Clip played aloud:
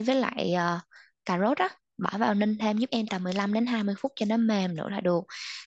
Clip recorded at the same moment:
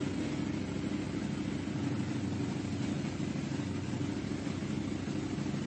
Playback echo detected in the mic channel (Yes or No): No